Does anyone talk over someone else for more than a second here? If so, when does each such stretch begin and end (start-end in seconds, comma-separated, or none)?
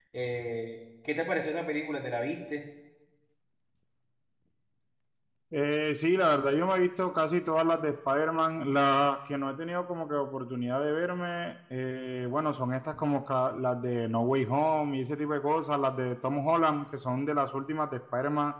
none